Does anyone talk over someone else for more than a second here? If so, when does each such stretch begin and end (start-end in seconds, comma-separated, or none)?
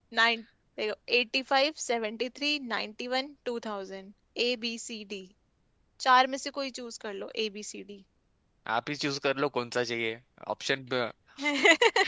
none